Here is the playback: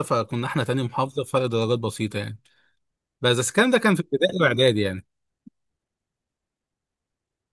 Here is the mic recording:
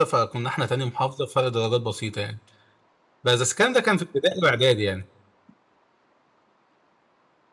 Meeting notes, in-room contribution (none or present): none